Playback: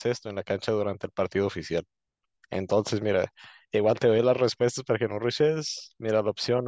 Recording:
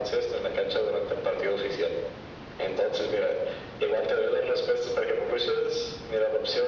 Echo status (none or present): present